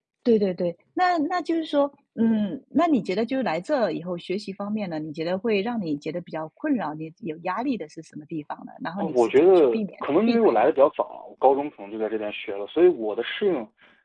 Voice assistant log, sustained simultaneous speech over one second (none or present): present